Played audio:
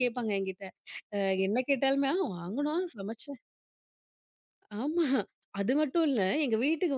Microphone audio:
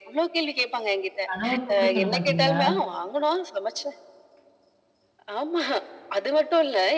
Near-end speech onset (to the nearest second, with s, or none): 1 s